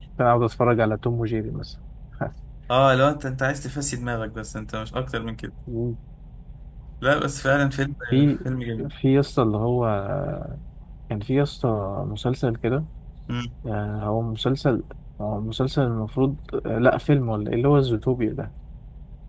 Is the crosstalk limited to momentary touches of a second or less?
Yes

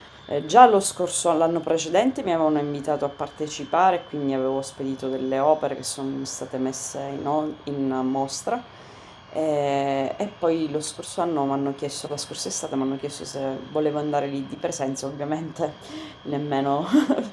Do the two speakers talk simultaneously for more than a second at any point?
No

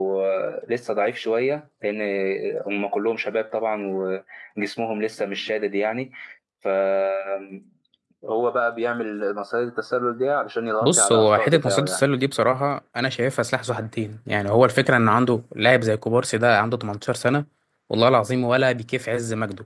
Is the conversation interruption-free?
No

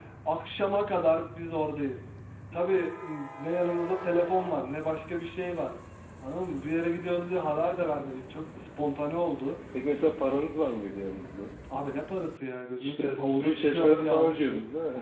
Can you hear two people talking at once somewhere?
Yes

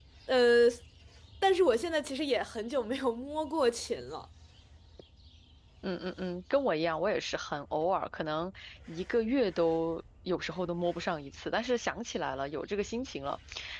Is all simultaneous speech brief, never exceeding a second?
Yes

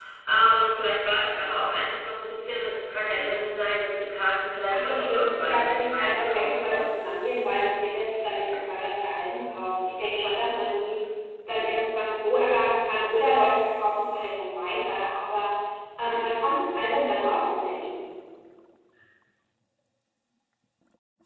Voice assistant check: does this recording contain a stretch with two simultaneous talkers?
Yes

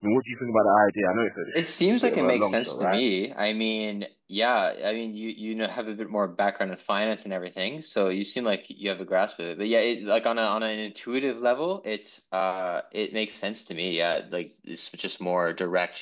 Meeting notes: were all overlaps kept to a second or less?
No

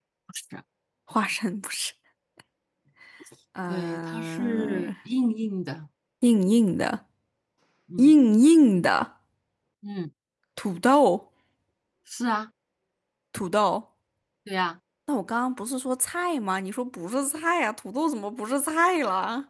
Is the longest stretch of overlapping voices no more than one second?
No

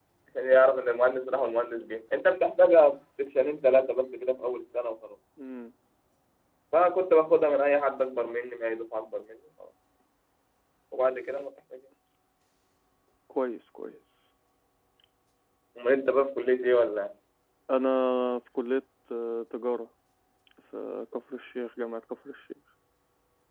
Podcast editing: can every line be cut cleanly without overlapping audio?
Yes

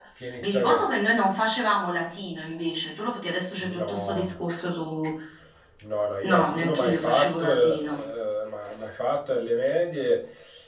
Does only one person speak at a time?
No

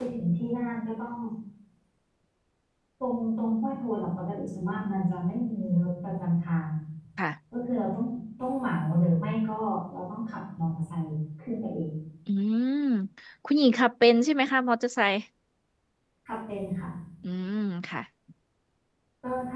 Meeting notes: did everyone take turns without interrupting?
Yes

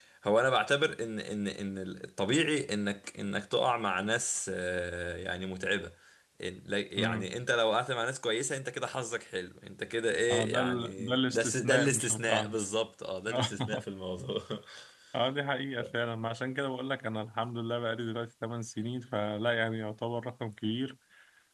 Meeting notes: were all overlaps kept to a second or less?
No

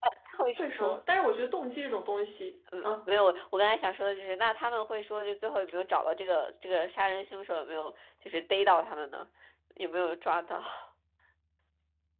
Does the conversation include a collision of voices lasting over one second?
No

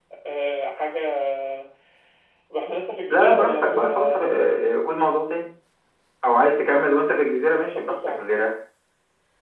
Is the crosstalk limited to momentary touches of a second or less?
No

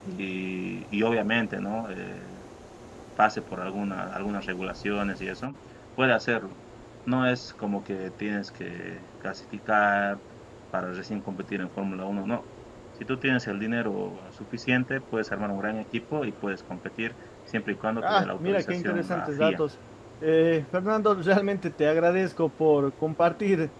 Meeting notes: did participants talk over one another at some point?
Yes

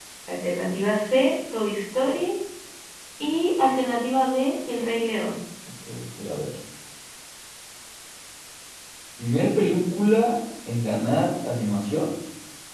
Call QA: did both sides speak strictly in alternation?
Yes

